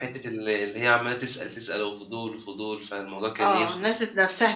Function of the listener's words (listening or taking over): taking over